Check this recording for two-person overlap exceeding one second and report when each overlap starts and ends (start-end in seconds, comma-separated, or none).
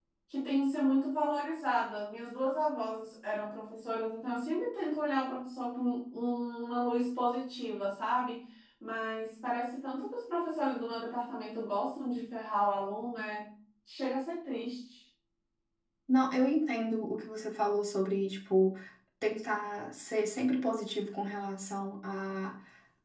none